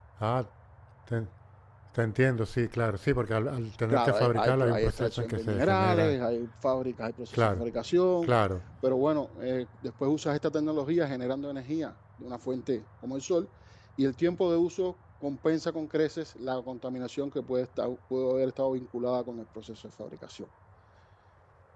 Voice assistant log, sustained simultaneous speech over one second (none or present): present